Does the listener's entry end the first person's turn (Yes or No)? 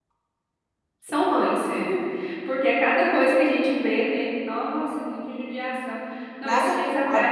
No